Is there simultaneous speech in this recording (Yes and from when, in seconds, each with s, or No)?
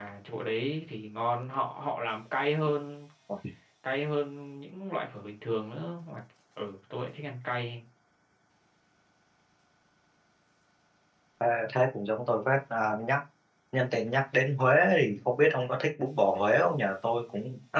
No